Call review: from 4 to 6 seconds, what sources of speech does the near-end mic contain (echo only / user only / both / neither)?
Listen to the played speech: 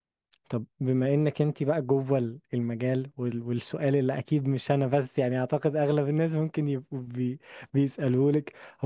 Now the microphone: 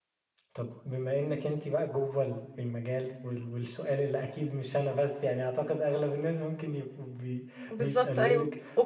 echo only